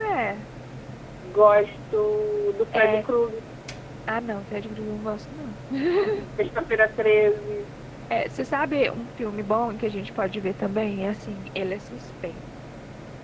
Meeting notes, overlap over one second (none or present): none